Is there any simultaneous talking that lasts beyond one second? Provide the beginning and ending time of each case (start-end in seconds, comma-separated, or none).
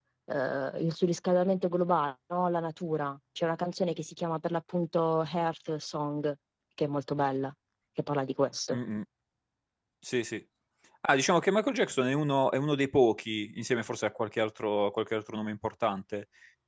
none